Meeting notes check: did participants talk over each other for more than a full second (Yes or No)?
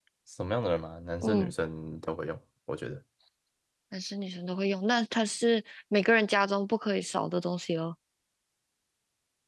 No